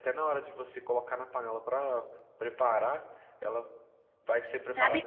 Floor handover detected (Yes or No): Yes